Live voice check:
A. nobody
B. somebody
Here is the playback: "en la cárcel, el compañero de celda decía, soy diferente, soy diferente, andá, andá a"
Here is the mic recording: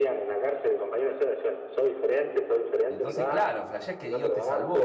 B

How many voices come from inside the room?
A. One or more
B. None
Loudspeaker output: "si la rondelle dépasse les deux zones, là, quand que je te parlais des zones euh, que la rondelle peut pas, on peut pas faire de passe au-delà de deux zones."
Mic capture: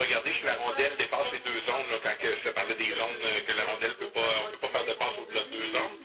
A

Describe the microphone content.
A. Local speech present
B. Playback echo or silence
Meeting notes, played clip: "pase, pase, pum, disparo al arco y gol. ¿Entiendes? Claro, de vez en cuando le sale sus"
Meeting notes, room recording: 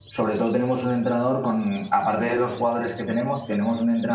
A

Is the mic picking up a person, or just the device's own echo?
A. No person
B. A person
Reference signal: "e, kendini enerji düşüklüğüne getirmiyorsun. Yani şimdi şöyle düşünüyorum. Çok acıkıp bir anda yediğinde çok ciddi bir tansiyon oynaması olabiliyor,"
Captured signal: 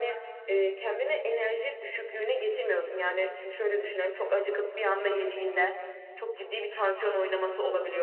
A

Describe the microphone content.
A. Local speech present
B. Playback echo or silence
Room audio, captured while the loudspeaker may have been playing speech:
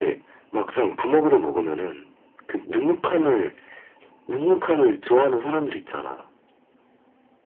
B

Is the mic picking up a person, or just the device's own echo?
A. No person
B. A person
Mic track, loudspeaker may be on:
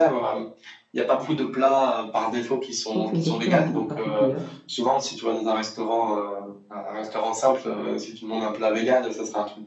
B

